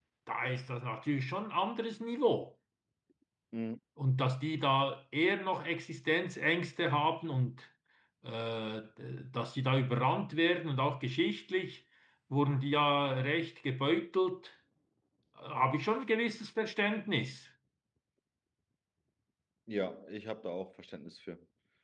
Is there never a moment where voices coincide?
Yes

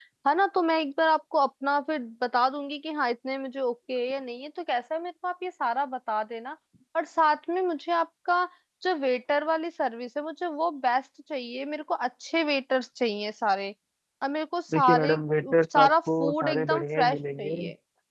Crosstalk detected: Yes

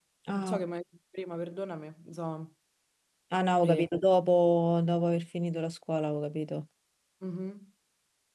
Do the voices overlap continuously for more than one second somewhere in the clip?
No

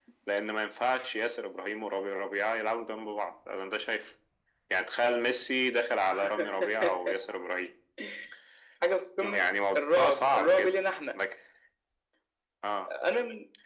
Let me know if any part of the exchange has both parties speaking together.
Yes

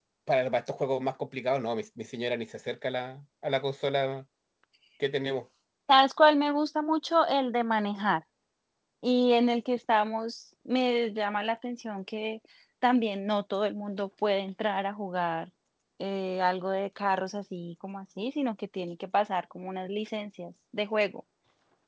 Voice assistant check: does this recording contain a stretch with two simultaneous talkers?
No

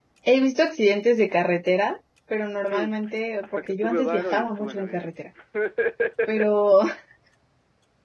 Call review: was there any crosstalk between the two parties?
Yes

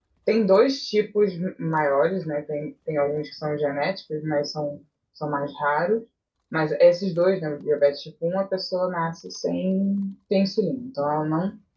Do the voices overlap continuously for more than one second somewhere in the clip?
No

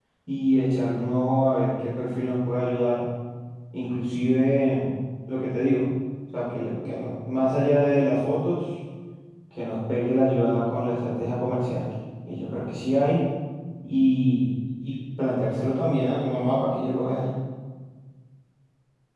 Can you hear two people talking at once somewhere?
No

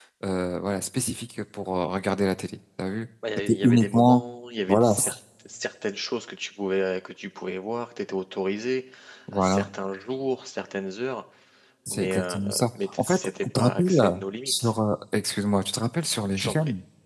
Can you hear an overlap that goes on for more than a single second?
Yes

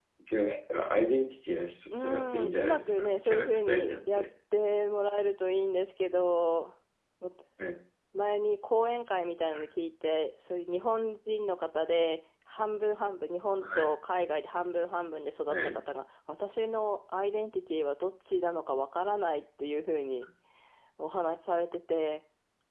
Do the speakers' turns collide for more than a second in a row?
Yes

